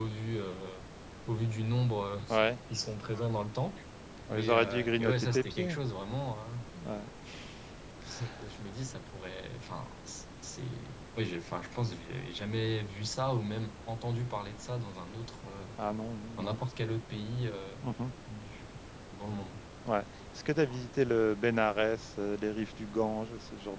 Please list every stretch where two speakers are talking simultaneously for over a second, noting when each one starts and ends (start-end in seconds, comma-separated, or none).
4.3-5.8